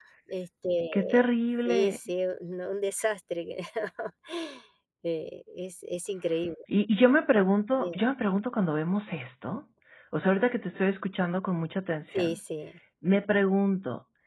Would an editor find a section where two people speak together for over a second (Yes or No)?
No